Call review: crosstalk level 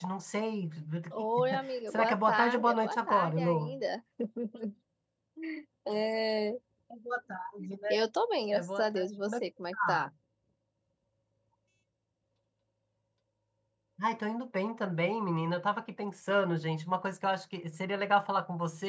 present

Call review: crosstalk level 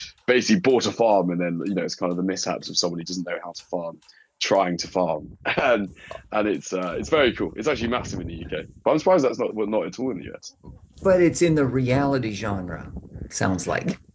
none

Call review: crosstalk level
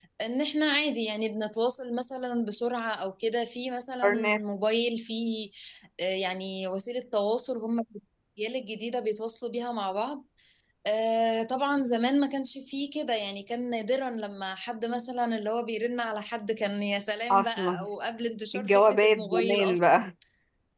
present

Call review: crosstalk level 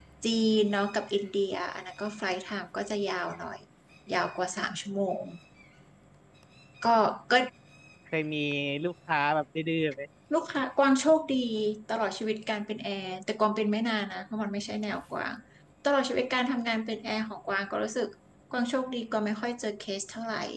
none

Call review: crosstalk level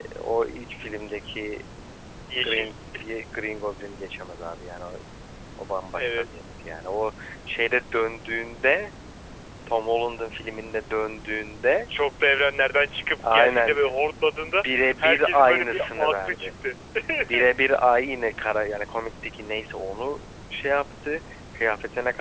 present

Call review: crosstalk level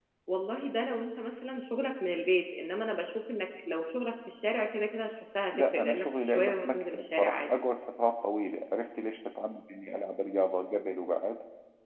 present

